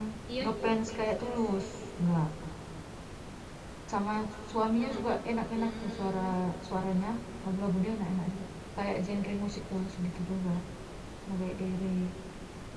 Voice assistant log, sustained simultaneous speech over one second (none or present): present